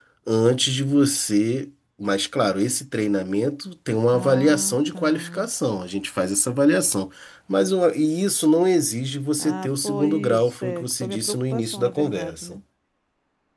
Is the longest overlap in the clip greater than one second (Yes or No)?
Yes